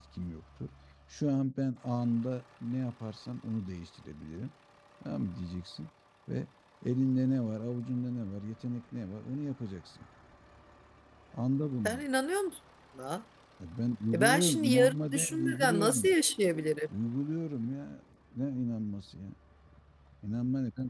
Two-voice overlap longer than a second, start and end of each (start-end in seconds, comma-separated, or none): 14.1-16.1